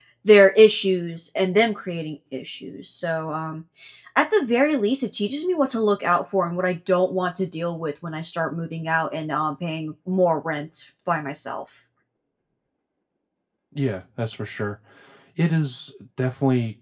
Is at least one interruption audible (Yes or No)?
No